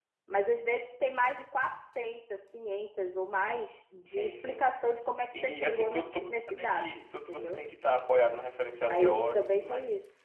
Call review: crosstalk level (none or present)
present